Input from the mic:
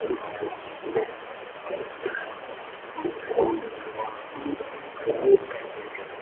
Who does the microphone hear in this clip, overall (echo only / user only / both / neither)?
echo only